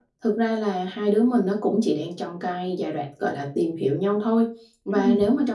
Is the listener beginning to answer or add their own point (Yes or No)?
No